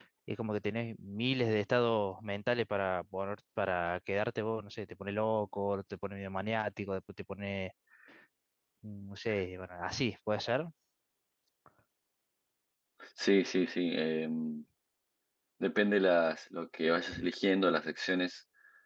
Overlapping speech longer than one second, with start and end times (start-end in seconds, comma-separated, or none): none